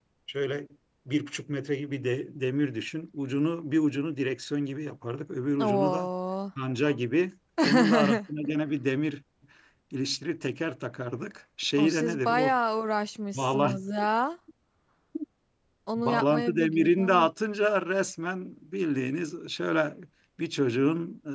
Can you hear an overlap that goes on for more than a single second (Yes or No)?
Yes